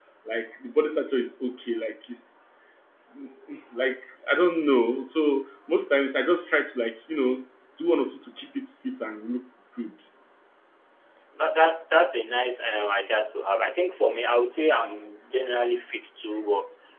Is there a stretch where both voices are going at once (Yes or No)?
No